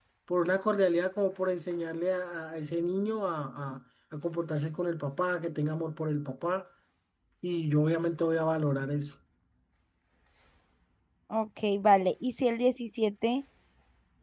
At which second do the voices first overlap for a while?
none

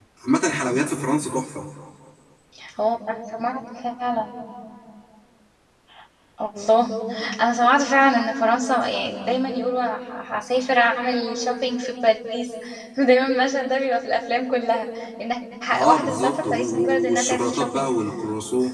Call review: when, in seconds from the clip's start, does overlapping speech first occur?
15.7 s

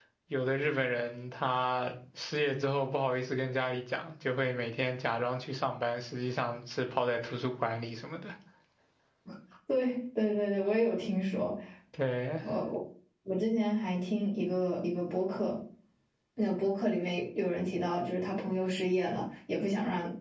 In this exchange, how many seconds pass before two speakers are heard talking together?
none

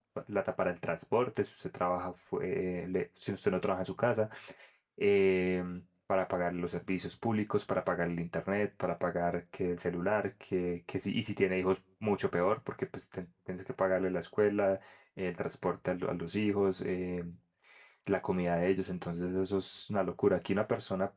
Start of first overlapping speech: none

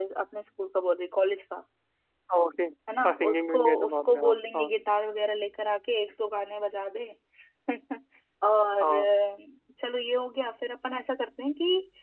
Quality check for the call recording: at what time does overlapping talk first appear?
3.1 s

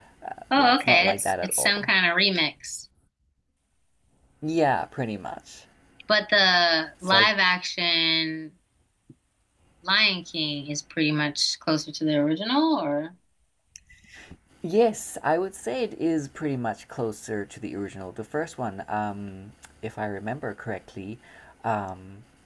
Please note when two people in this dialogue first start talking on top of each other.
0.5 s

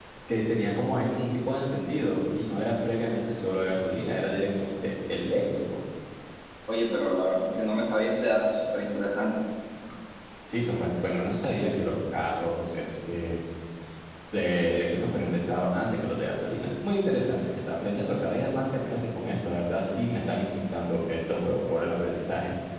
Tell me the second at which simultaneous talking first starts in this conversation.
none

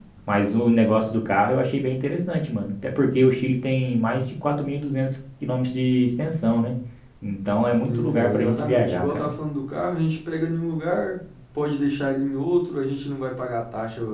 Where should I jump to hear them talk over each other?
7.8 s

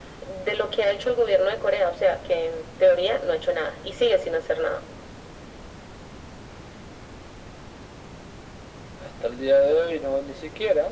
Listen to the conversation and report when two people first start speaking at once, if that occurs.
none

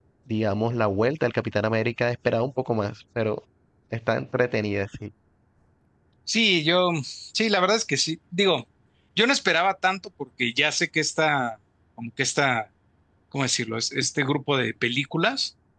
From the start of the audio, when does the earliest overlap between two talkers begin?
none

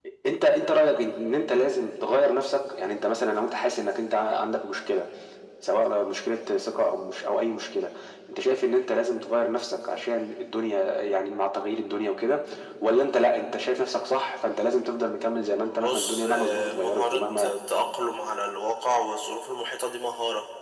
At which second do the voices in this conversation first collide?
15.6 s

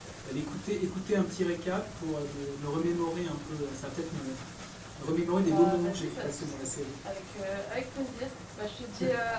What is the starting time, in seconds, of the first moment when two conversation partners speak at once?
5.4 s

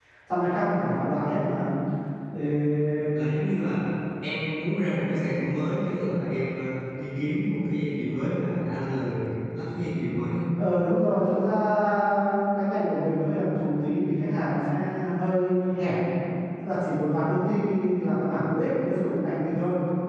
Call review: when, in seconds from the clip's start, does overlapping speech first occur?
none

